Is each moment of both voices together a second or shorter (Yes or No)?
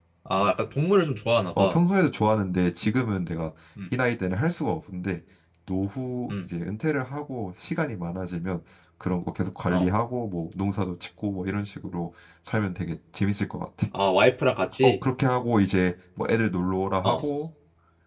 Yes